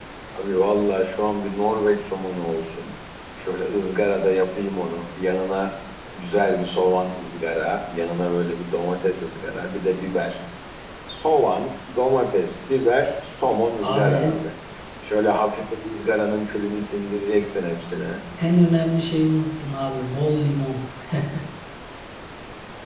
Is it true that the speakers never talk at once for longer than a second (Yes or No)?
Yes